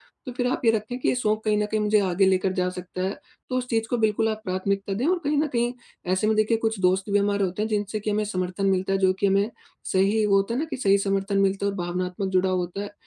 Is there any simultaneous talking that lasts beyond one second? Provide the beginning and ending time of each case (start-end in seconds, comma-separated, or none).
none